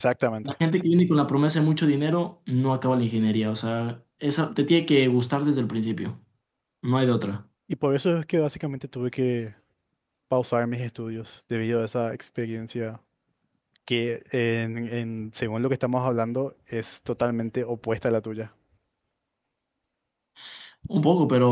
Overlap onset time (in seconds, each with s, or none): none